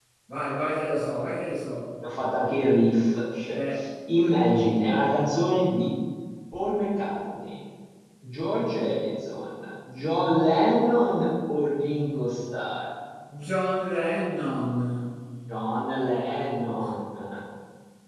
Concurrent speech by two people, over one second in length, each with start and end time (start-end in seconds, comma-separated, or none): none